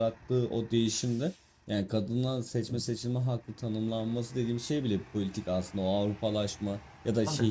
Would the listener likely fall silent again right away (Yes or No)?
Yes